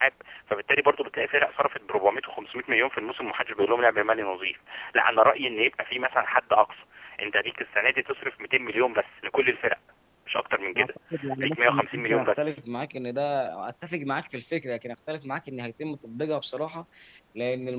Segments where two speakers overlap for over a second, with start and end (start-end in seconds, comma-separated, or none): 11.4-12.6